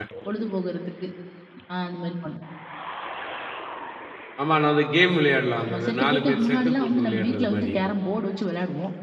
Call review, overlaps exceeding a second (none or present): present